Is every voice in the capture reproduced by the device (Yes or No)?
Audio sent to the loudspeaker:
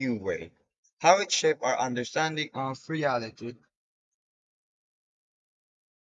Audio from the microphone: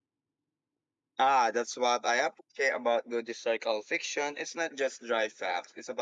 No